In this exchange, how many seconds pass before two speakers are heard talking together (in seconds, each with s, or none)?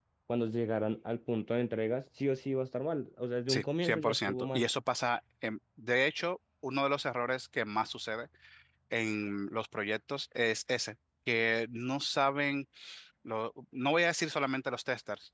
3.5 s